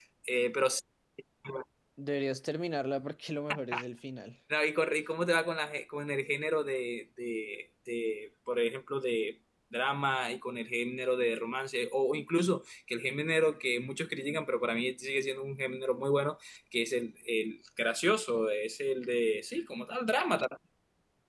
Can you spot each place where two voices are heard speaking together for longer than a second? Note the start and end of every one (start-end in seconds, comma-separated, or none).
none